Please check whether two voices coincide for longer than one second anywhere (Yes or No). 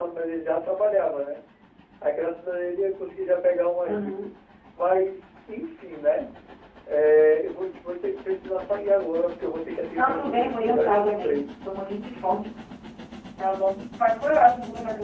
Yes